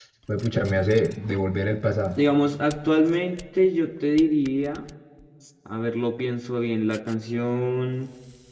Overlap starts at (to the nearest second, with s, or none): none